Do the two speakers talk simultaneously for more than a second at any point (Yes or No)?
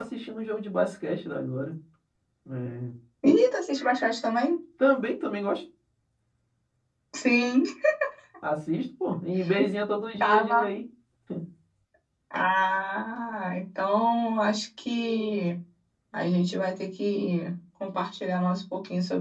No